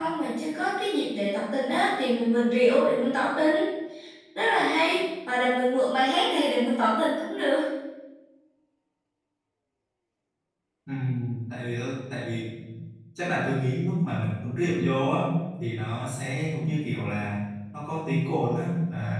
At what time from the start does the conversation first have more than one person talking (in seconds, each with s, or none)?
none